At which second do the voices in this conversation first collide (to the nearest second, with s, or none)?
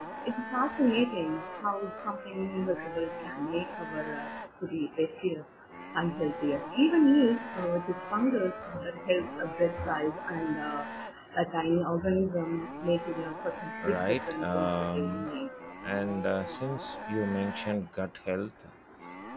14 s